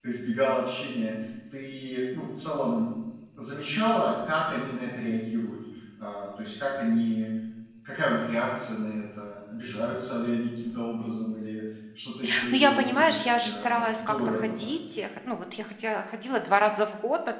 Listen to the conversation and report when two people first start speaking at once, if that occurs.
13 s

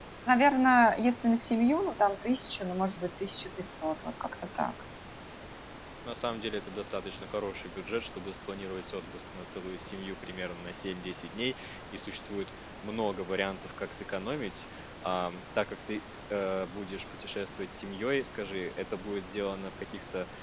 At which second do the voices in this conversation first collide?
none

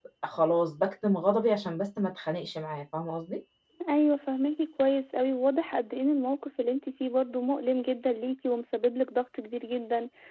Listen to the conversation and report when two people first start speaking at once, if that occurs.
none

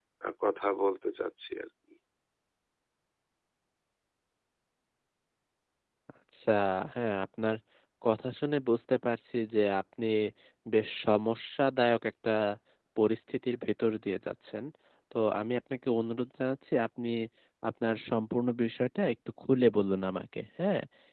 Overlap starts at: none

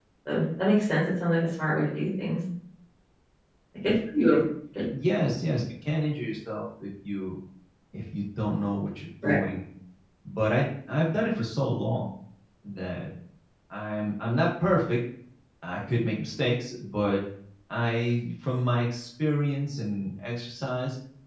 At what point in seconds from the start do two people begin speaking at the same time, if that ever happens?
none

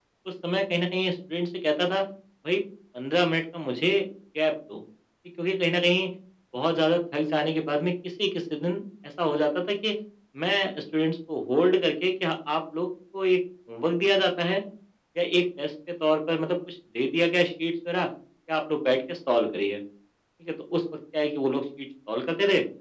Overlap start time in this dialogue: none

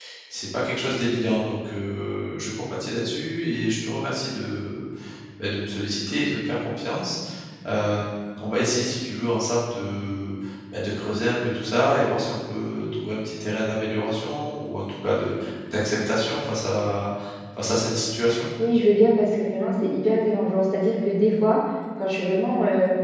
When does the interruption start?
none

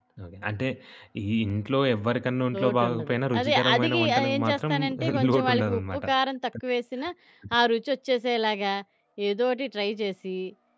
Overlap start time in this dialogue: 3 s

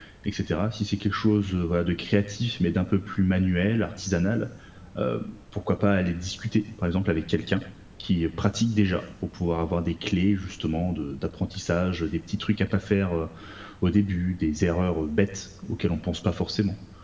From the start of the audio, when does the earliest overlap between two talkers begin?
none

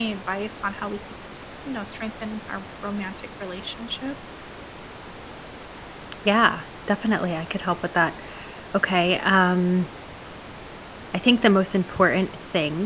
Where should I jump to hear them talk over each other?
none

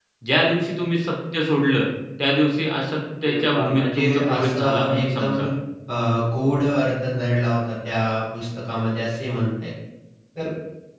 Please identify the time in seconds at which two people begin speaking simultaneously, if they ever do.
3 s

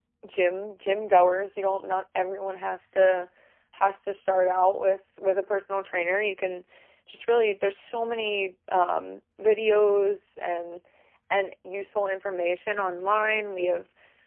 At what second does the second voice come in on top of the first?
none

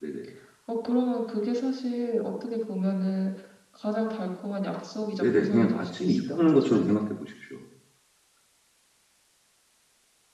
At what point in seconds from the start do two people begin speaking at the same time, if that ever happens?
5 s

